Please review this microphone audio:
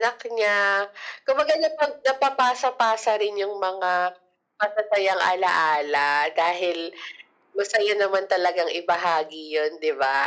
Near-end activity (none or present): none